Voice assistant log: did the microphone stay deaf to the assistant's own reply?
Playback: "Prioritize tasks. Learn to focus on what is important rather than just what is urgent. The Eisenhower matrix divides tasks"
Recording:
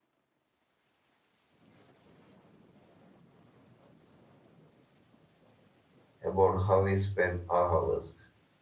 Yes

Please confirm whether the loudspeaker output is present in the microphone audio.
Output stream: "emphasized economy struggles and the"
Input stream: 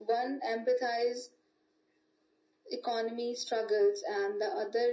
Yes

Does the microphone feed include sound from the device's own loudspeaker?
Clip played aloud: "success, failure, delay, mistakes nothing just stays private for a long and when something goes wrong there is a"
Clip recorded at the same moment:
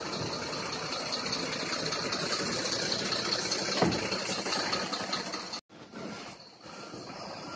No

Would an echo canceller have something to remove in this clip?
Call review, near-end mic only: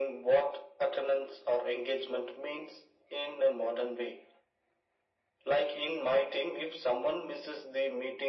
Yes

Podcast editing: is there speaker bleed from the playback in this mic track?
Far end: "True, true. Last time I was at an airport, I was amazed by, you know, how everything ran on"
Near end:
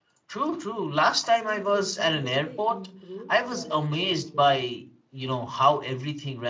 Yes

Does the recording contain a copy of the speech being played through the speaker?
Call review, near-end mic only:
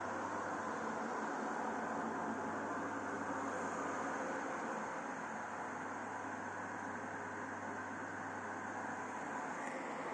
No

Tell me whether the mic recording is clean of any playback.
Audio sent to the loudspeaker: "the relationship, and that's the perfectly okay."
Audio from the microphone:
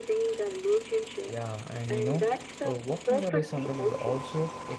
No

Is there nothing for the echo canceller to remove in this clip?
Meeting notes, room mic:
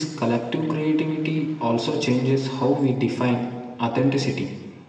No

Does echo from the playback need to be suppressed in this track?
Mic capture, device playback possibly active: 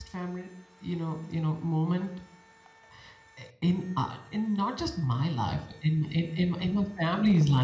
No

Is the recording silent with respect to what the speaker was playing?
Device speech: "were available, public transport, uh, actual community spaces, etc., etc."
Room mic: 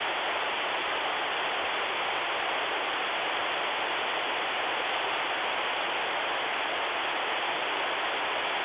Yes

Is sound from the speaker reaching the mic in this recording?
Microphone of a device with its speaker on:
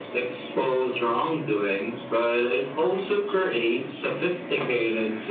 Yes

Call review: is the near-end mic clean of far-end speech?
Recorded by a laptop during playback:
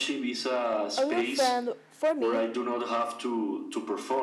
No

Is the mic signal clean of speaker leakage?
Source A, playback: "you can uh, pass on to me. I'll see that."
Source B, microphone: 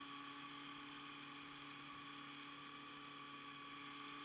Yes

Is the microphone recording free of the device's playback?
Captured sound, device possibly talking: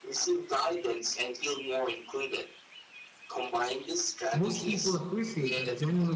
No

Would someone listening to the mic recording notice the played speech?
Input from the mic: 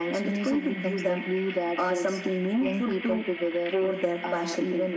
Yes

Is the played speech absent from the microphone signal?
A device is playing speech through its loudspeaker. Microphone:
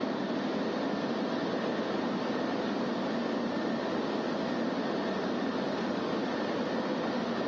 Yes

